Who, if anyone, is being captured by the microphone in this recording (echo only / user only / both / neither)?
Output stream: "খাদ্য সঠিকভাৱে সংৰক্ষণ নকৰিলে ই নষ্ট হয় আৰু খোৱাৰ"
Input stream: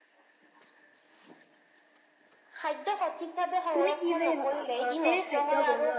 both